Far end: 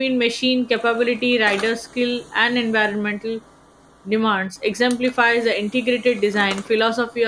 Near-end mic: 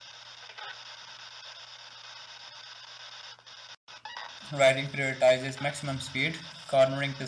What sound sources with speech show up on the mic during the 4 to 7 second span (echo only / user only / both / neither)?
user only